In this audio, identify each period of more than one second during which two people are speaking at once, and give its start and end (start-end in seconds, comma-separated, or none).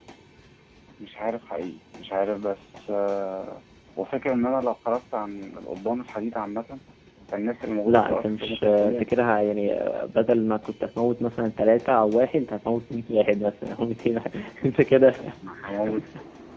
7.8-9.0